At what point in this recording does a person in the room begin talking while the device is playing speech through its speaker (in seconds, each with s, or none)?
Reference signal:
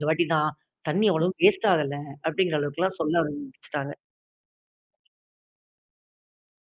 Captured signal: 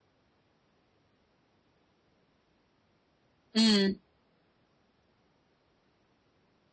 3.5 s